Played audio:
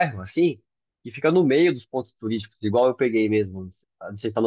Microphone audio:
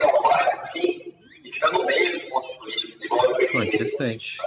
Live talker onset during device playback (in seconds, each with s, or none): 3.5 s